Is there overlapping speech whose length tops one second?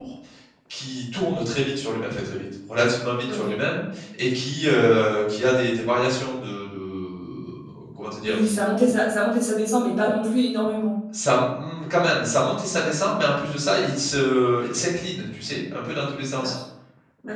No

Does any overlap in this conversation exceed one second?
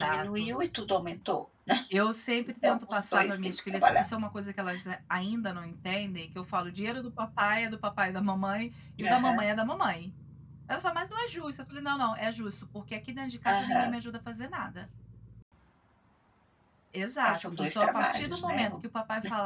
Yes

